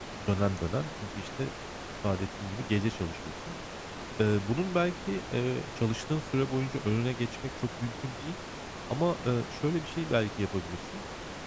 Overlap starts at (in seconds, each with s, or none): none